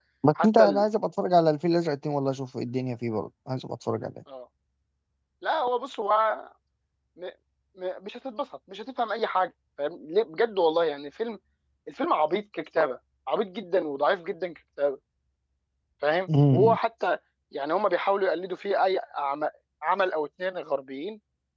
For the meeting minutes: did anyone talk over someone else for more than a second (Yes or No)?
No